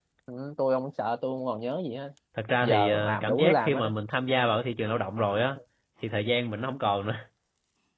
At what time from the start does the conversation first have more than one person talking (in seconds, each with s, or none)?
2.6 s